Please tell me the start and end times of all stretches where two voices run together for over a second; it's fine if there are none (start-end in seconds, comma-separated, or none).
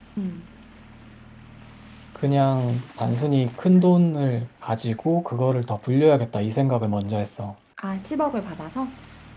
none